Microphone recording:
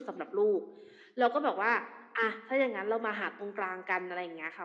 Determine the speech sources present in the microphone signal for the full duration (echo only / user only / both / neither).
echo only